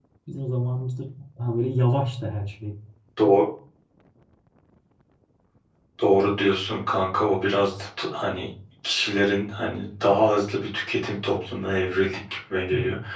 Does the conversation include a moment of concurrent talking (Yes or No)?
No